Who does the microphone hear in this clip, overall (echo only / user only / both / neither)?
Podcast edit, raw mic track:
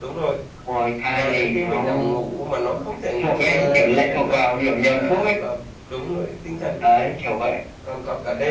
both